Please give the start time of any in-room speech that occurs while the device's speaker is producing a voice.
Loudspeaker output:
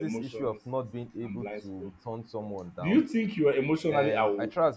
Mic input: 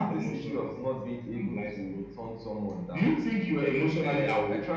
none

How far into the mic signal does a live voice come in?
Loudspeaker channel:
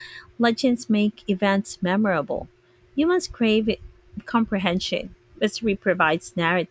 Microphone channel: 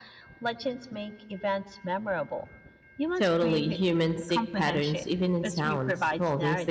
3 s

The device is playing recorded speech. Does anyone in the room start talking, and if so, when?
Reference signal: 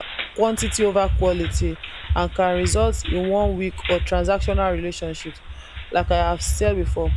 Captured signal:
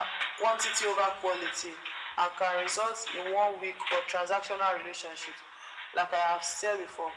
none

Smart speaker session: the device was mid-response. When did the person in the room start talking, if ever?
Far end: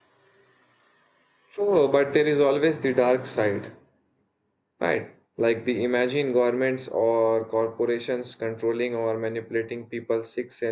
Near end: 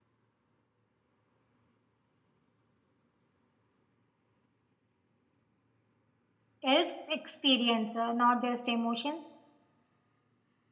7 s

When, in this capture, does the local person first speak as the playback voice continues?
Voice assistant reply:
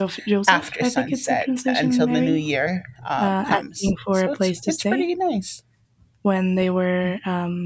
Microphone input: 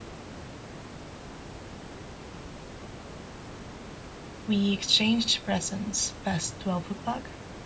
4 s

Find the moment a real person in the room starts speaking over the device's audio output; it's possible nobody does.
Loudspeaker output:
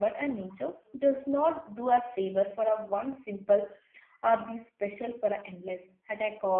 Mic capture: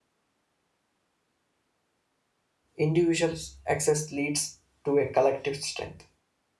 3 s

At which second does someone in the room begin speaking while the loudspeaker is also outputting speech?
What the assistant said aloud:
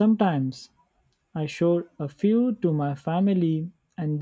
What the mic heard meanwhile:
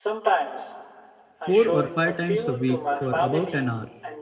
1 s

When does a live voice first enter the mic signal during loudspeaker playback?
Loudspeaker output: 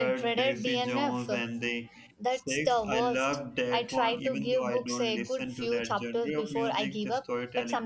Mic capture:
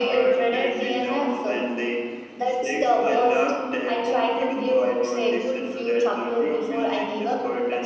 none

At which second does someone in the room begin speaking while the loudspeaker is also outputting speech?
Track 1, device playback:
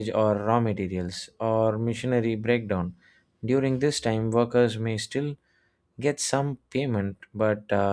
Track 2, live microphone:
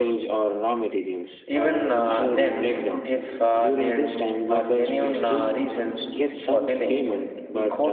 1 s

